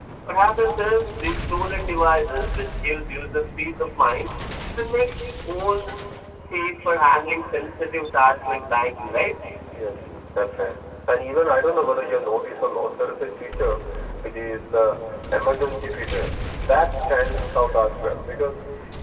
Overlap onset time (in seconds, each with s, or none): none